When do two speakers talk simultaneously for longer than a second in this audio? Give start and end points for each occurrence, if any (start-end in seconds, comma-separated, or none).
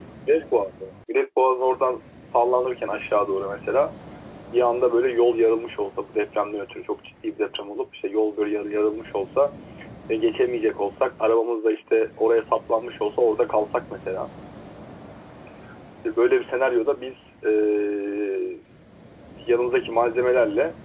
none